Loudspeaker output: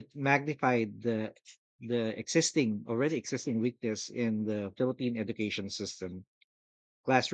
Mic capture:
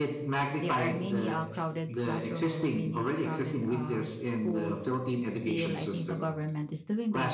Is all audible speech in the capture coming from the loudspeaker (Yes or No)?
No